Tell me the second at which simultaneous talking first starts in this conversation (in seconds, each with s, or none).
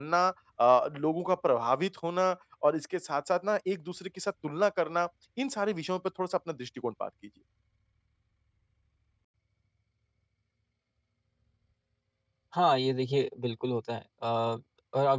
none